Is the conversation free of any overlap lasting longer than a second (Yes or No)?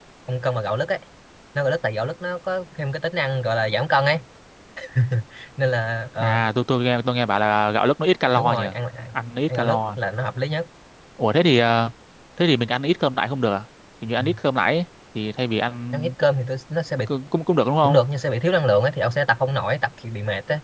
Yes